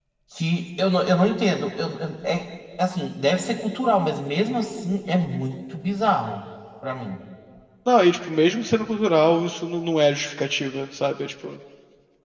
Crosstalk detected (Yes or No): No